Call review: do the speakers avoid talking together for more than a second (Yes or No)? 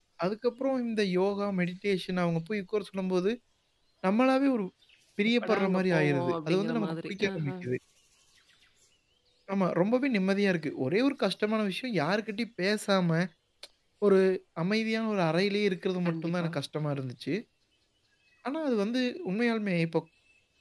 No